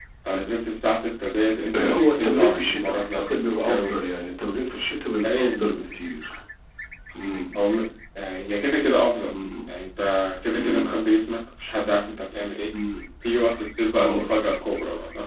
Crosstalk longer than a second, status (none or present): present